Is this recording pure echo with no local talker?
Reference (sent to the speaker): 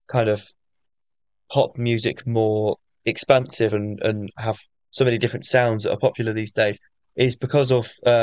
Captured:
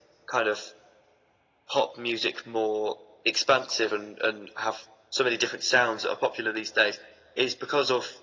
Yes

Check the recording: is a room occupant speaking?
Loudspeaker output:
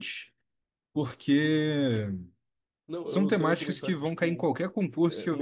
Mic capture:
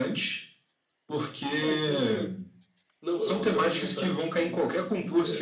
Yes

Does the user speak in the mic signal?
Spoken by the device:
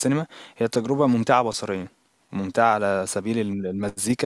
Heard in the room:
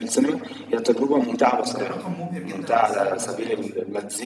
Yes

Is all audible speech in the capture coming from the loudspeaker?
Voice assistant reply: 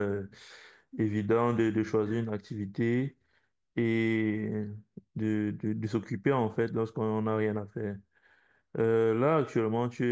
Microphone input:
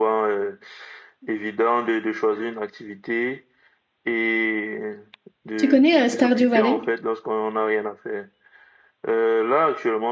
No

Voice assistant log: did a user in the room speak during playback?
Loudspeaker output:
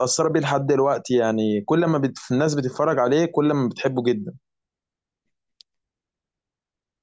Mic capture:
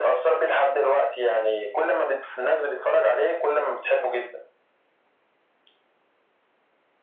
No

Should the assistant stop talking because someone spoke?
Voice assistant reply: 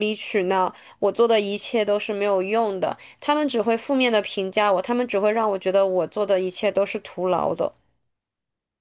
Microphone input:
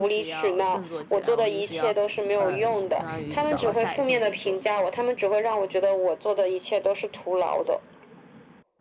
Yes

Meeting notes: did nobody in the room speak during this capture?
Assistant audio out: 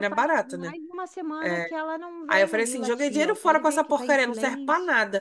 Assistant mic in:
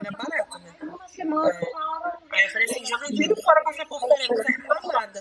Yes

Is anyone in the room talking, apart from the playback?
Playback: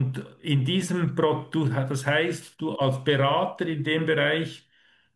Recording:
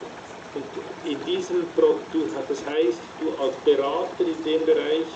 No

